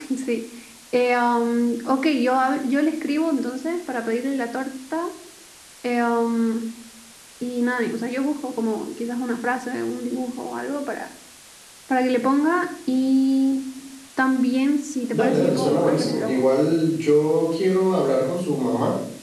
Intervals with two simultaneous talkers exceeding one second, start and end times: 15.1-16.4

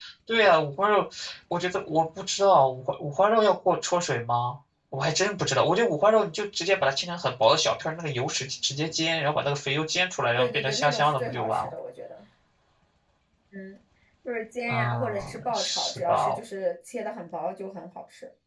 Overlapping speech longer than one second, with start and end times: 10.4-11.7, 14.7-16.3

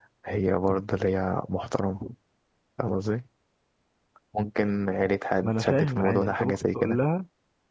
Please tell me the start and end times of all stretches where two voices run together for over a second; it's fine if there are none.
5.4-7.0

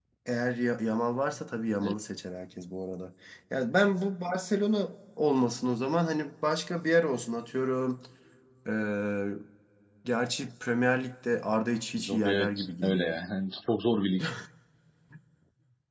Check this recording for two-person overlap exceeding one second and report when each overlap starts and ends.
11.9-13.2

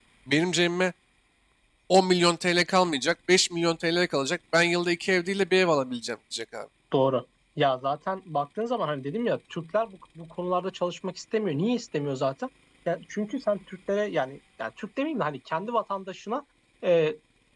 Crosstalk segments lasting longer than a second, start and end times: none

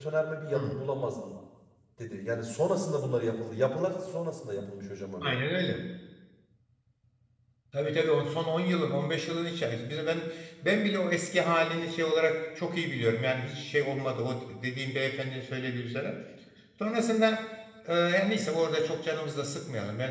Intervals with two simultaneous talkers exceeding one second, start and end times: none

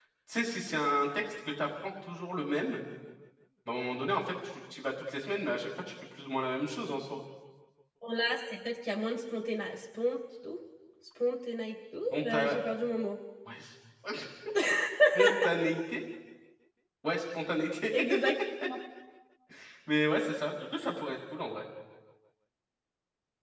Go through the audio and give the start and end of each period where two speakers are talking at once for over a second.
none

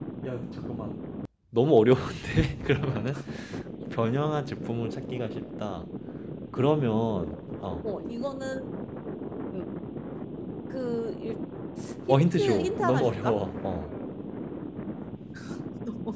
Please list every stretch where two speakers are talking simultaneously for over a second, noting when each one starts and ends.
12.1-13.4

